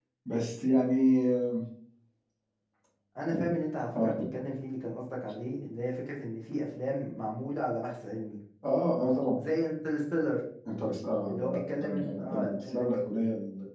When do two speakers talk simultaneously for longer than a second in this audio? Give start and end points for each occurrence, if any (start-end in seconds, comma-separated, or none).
11.3-12.9